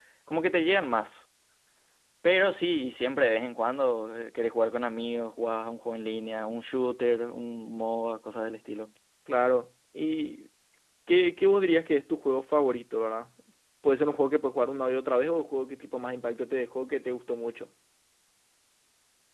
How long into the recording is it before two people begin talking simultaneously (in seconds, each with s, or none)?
none